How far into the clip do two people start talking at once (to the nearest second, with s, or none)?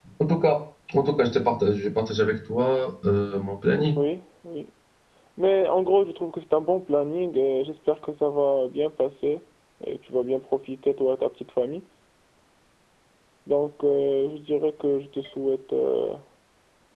none